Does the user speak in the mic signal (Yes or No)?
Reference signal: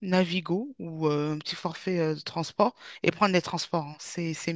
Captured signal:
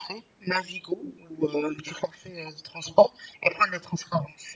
No